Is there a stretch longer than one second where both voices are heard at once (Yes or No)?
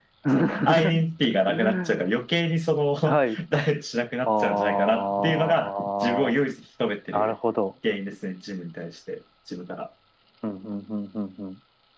Yes